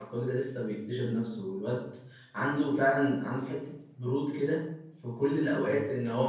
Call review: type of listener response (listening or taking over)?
listening